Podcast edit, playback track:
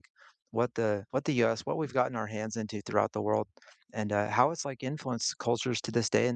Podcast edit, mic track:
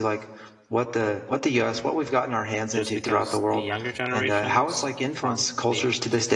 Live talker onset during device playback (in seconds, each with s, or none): 2.7 s